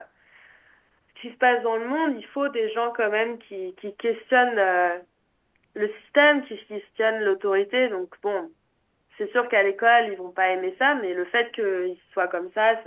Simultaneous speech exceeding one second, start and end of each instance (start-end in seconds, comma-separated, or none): none